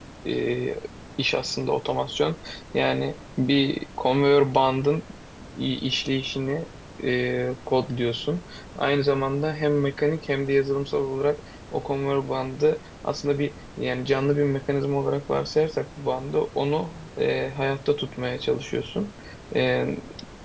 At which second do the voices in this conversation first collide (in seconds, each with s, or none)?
none